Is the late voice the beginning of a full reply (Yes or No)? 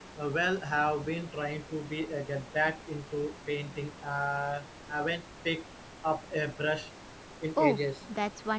Yes